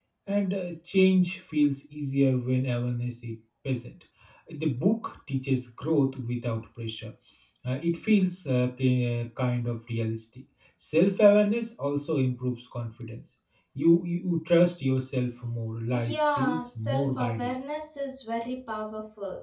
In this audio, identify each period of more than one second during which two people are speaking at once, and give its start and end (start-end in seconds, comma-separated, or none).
15.9-17.5